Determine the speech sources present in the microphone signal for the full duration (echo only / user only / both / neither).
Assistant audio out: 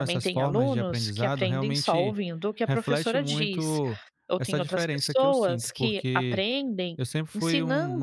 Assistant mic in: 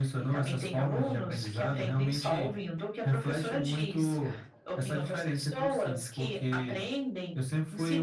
echo only